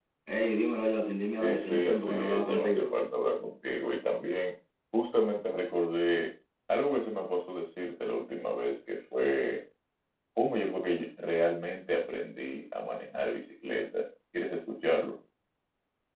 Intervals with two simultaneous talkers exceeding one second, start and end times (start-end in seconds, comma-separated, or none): 1.3-2.9